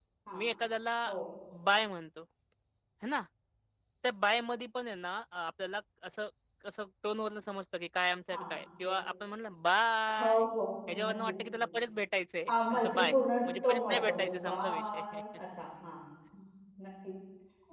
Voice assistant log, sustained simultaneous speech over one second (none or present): present